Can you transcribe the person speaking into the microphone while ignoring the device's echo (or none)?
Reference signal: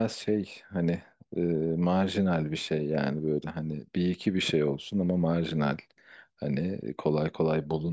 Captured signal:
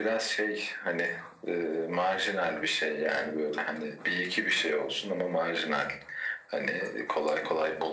none